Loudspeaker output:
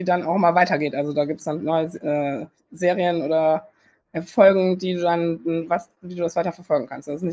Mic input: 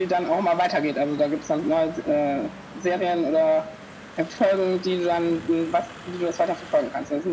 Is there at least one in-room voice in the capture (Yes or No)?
No